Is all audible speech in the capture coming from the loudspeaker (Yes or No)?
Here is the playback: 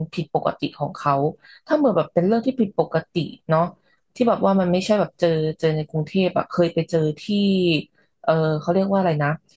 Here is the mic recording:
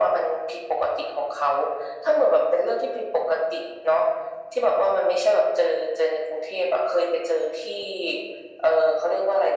Yes